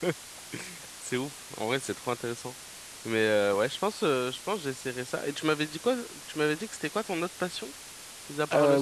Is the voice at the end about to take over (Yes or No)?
Yes